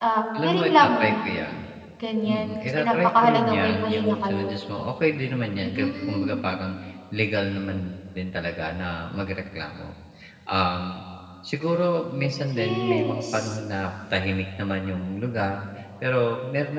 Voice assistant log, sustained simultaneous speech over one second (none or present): present